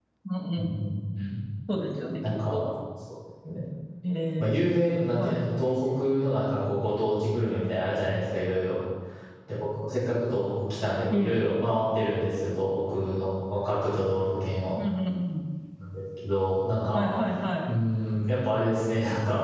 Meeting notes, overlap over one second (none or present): none